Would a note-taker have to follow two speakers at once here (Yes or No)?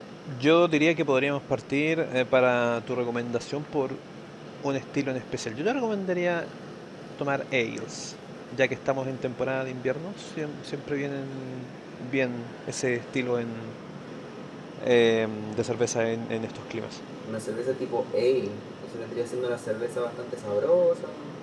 No